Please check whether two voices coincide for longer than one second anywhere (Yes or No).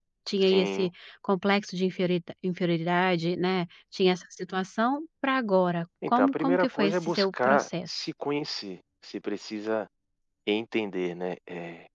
Yes